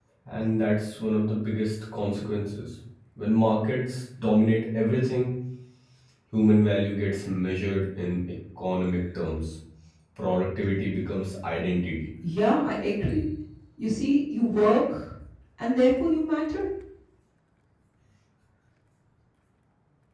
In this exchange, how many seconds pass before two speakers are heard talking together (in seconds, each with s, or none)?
none